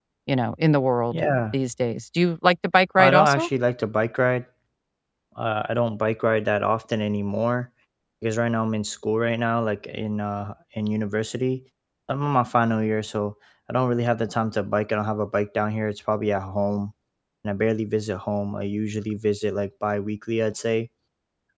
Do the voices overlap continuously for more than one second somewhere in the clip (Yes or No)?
No